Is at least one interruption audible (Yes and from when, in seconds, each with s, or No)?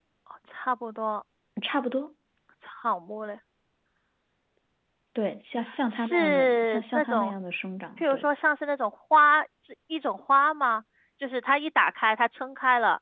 Yes, from 5.9 s